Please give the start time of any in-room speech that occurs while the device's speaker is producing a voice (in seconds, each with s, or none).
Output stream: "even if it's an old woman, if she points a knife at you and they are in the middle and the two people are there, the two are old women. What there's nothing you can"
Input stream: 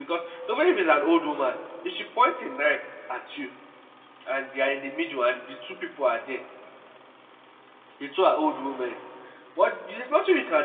none